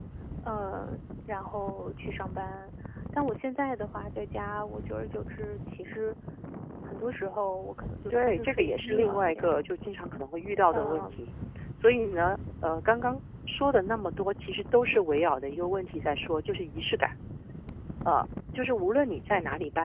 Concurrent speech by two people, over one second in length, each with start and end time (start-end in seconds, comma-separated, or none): 8.1-9.6